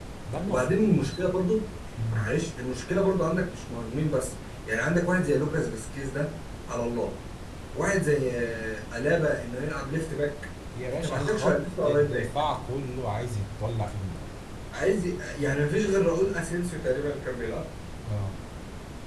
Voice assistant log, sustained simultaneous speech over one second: present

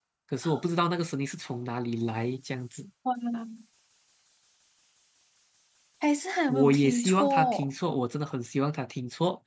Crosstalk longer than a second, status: present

